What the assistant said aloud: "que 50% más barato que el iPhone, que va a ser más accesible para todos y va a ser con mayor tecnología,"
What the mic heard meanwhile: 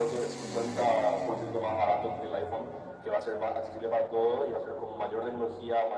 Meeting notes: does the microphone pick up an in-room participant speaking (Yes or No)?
No